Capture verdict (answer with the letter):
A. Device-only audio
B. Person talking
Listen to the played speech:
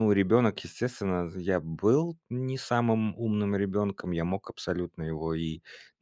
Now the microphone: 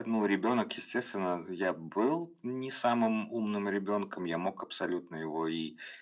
A